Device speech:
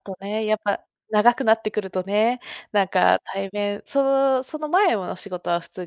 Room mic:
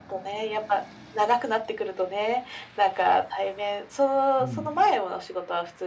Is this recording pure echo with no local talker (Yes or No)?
No